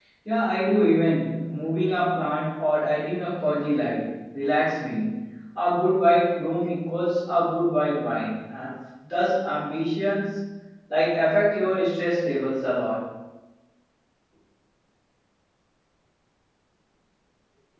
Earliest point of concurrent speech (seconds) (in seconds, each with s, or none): none